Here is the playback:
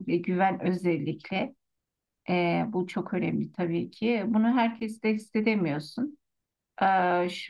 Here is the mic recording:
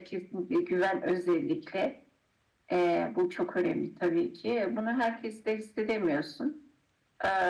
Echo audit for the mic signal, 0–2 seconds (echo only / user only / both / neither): echo only